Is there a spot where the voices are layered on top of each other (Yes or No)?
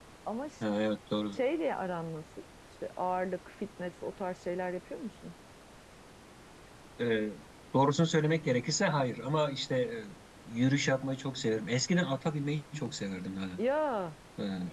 No